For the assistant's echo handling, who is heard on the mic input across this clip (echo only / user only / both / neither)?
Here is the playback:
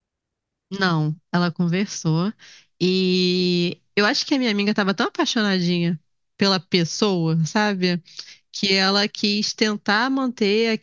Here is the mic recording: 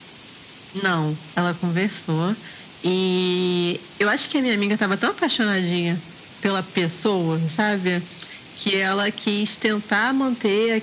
echo only